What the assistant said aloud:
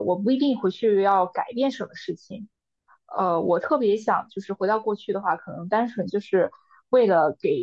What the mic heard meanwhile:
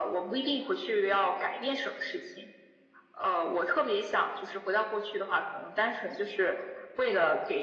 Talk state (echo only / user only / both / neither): echo only